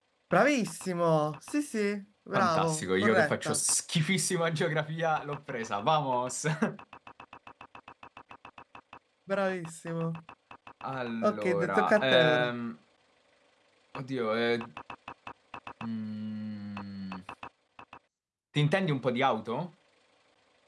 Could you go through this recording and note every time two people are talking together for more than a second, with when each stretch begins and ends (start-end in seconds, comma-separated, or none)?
2.3-3.6, 11.2-12.5